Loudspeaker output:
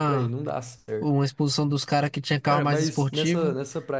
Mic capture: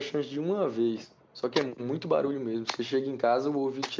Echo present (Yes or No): No